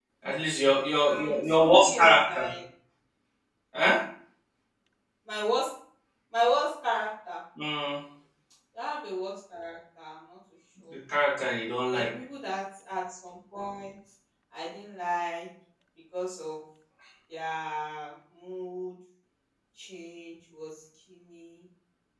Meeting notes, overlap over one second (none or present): present